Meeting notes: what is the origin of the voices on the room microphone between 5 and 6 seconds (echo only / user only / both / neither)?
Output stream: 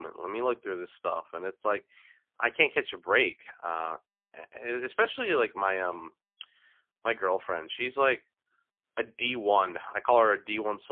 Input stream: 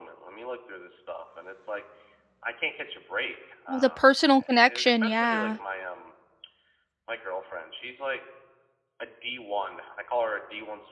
both